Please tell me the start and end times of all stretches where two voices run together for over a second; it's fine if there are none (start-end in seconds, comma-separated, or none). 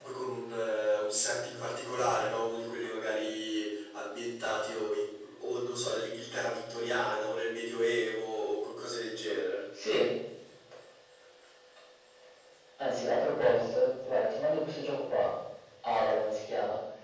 none